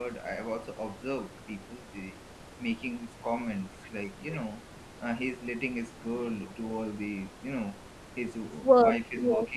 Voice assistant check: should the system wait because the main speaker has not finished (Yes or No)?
Yes